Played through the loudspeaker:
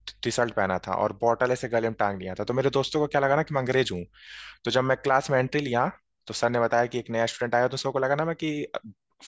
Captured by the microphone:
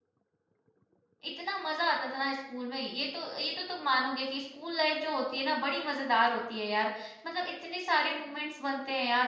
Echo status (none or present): none